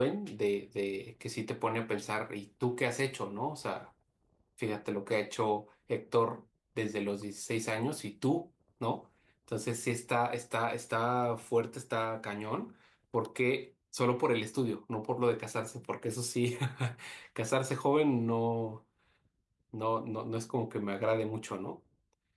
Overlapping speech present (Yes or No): No